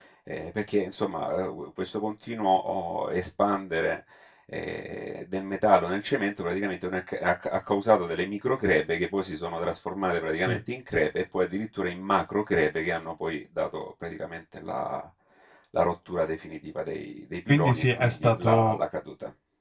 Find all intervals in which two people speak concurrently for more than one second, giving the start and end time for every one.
17.5-18.8

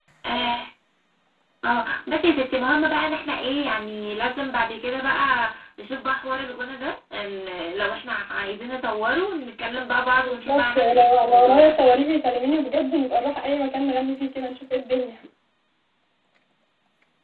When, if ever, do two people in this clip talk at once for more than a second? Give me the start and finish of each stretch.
10.2-11.8

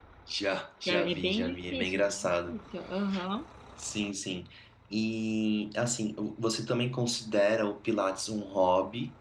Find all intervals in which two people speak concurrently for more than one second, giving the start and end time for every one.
0.9-2.6

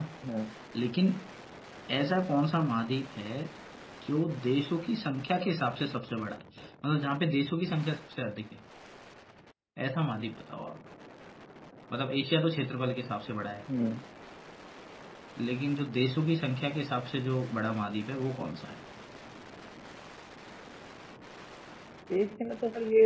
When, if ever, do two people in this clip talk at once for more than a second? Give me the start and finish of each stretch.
none

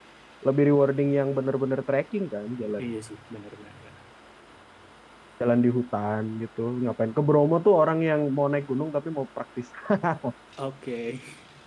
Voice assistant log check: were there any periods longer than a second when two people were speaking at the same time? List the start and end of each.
none

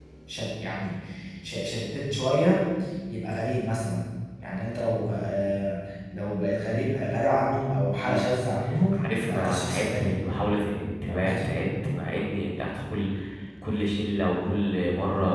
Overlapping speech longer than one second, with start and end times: 8.9-10.2

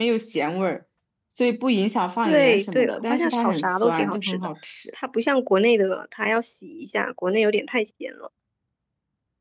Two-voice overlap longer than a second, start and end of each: 2.2-4.5

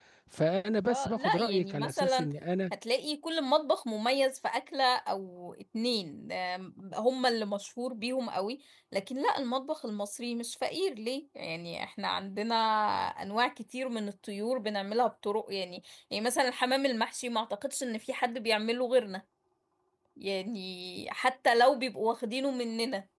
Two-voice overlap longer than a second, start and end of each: 0.9-2.3

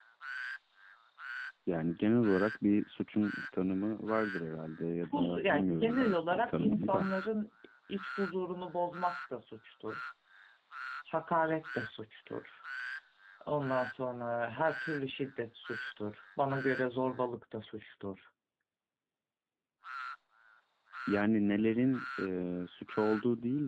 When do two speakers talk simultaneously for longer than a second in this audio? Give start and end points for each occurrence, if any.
5.1-7.0

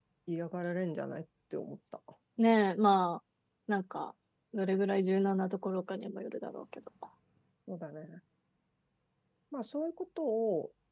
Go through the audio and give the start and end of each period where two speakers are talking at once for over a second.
none

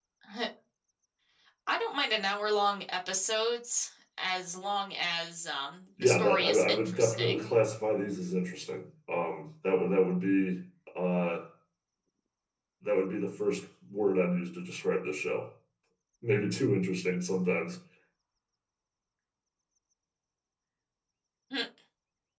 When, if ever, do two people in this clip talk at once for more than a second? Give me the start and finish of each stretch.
6.0-7.5

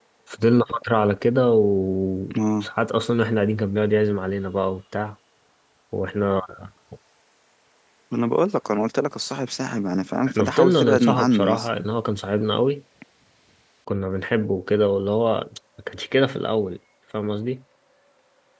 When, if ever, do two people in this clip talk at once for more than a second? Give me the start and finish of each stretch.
10.3-11.7

